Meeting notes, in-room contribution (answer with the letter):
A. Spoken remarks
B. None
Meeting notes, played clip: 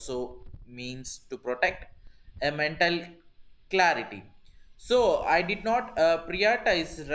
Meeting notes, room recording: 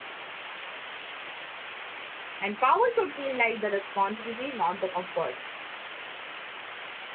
A